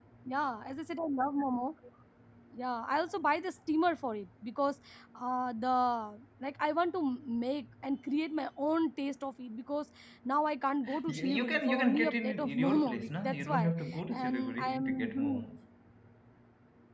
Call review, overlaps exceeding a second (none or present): present